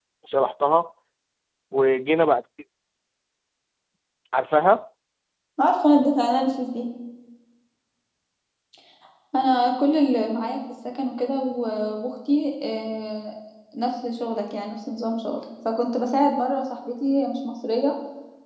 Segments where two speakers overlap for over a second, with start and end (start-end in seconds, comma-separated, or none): none